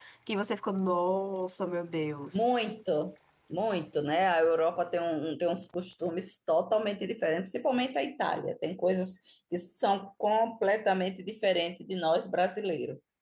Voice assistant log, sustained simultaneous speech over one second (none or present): none